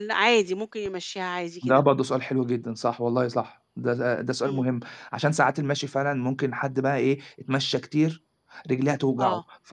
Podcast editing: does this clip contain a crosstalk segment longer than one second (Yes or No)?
No